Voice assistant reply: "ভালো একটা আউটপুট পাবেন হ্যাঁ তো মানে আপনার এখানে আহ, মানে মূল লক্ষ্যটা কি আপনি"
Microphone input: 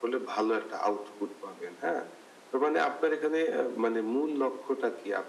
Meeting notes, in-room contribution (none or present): none